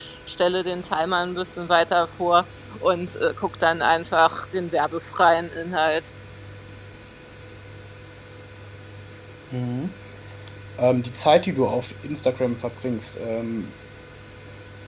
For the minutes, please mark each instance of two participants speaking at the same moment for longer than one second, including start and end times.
none

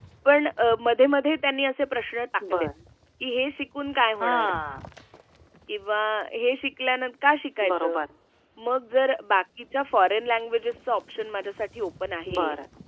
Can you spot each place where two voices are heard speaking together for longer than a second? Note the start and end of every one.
none

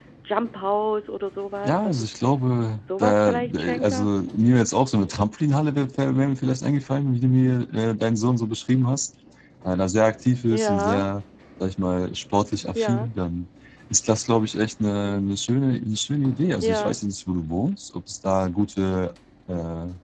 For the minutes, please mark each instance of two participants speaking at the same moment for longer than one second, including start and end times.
2.8-4.1

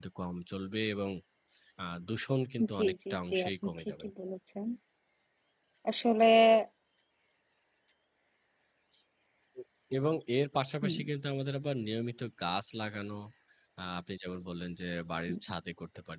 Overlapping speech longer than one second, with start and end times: 2.7-4.1

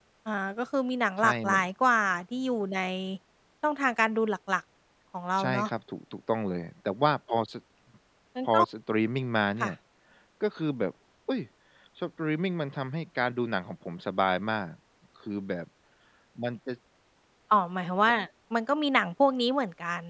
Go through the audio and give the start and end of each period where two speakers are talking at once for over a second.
none

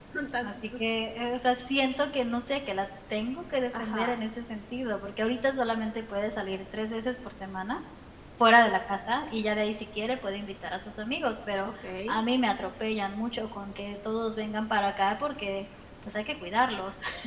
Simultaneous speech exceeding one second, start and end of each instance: none

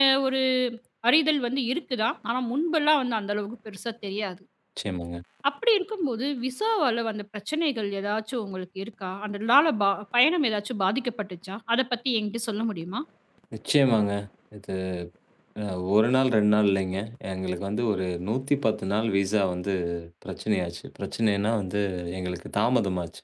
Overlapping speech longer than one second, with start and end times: none

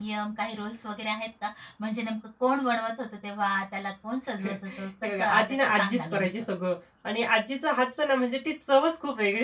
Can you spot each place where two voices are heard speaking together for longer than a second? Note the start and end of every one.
5.0-6.3

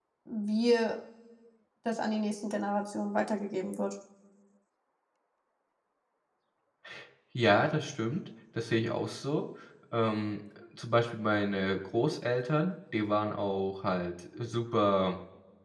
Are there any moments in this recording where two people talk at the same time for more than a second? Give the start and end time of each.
none

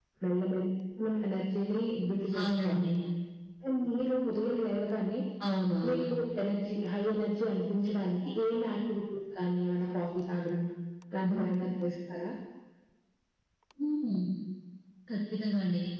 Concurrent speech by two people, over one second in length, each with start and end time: none

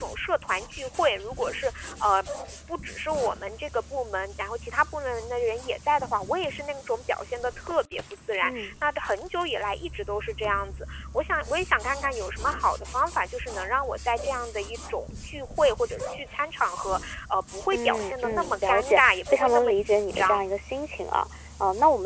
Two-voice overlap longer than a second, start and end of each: 17.7-20.5

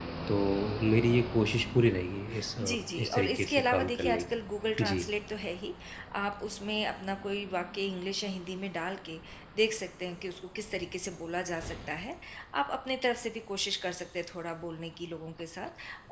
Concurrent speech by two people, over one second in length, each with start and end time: 2.6-4.2

